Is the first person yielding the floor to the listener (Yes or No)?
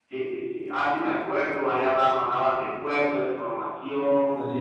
No